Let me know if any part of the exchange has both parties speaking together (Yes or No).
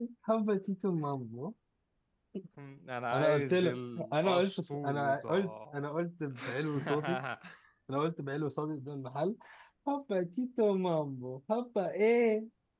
Yes